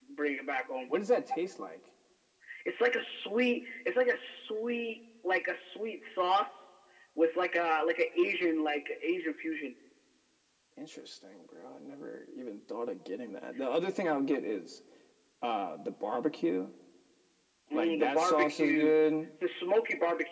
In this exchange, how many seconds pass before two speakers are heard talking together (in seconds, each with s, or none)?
17.7 s